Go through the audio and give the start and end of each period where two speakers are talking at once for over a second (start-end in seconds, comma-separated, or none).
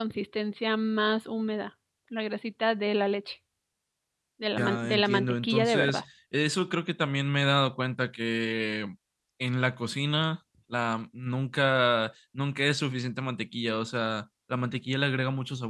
4.6-6.0